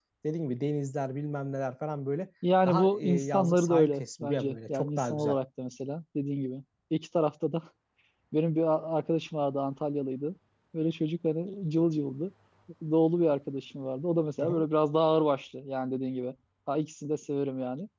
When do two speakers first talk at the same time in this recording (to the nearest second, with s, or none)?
2 s